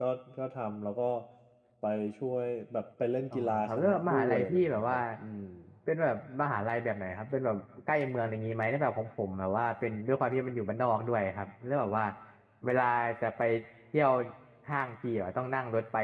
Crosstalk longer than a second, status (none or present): present